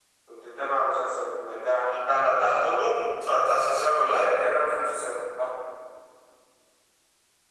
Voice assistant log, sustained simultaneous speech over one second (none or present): none